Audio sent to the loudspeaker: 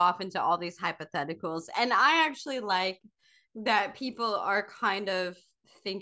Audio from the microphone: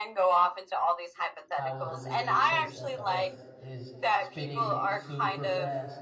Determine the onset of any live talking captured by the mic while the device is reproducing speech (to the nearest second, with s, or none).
2 s